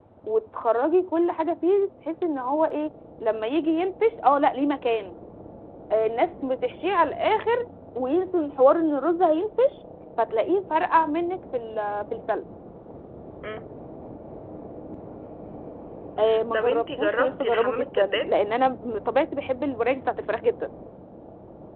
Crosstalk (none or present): present